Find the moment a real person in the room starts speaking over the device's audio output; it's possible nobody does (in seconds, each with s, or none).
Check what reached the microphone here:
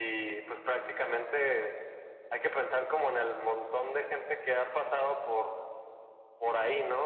none